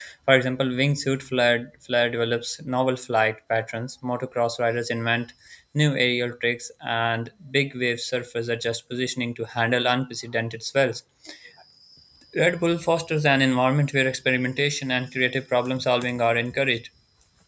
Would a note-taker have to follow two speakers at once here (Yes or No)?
No